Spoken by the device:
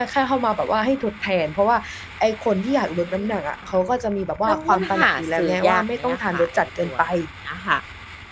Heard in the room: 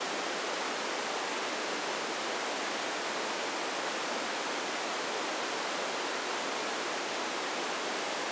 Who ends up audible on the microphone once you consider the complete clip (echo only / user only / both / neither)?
neither